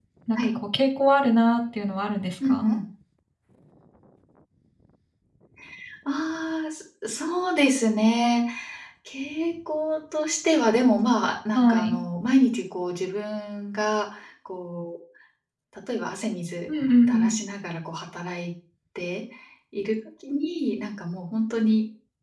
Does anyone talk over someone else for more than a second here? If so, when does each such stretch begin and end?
none

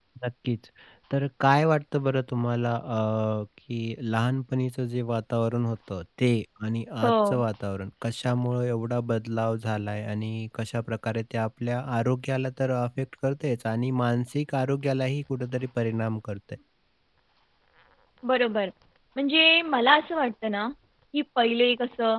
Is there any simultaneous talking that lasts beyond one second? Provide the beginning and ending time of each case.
none

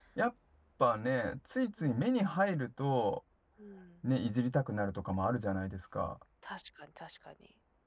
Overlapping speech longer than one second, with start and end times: none

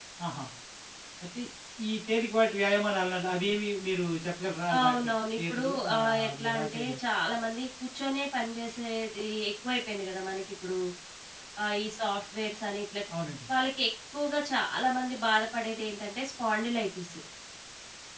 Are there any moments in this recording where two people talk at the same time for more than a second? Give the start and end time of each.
4.8-7.0

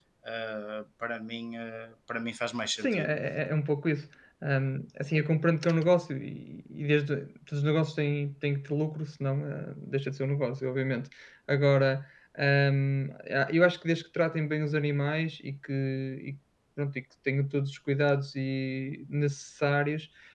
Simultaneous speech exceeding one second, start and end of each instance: none

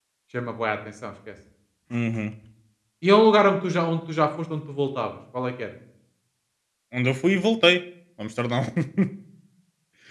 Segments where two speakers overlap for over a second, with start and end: none

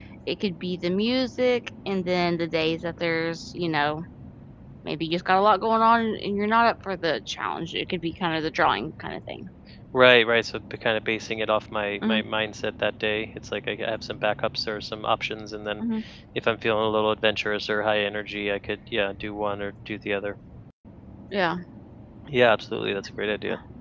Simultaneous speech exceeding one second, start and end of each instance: none

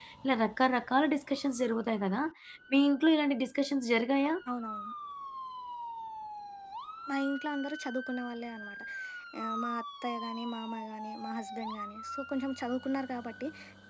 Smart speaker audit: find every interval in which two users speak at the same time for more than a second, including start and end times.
none

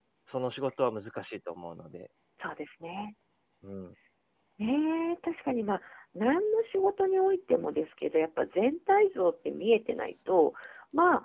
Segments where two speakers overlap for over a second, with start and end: none

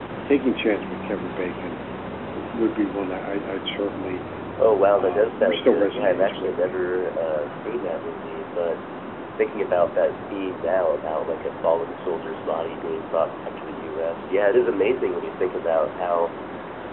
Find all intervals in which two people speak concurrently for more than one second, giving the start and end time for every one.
5.0-6.8

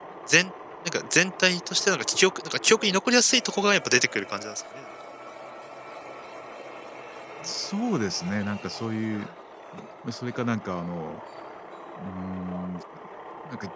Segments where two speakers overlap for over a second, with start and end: none

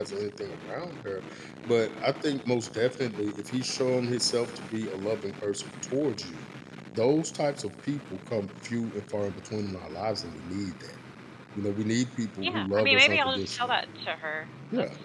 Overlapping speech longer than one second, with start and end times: 12.4-13.7

